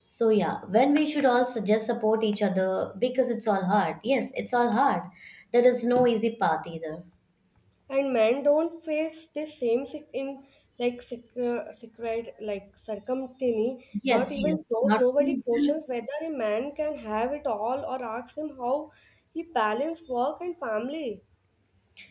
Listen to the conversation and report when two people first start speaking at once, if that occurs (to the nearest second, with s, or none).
14 s